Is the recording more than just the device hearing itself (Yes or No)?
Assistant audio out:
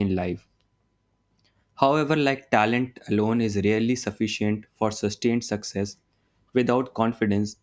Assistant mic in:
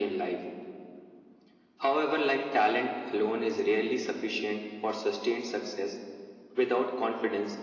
No